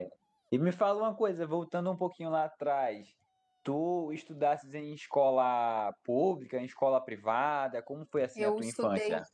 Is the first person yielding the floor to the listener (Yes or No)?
Yes